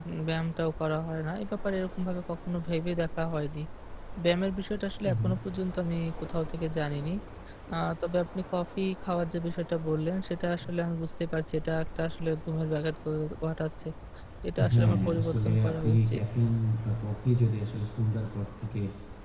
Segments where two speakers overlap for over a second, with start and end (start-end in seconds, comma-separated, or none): 14.7-16.2